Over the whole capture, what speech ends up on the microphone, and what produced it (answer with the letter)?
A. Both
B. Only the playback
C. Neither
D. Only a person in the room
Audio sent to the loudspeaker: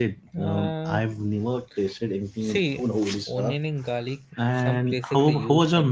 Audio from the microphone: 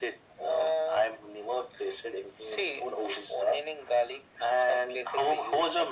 B